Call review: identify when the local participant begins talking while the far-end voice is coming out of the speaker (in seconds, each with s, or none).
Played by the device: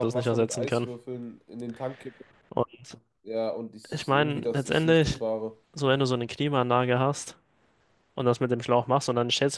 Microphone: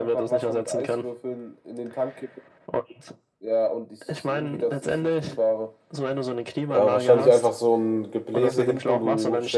6.7 s